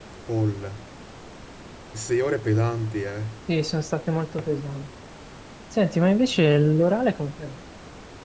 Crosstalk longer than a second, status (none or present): none